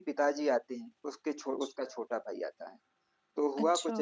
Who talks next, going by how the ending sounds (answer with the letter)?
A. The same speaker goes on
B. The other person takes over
A